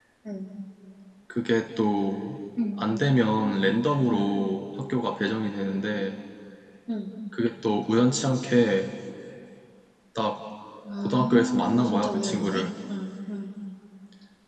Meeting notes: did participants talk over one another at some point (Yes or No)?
Yes